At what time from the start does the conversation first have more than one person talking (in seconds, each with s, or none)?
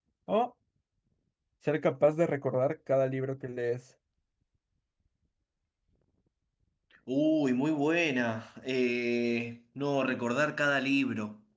none